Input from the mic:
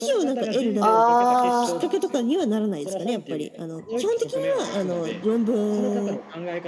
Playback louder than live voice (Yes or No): No